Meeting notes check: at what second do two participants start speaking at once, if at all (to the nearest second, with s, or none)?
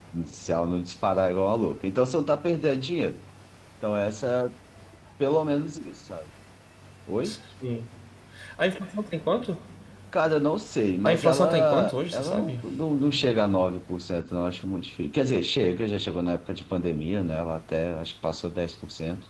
11 s